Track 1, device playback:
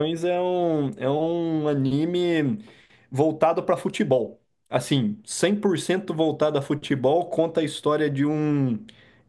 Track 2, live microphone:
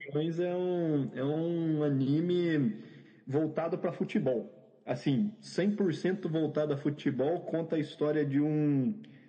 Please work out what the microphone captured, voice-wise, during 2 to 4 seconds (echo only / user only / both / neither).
echo only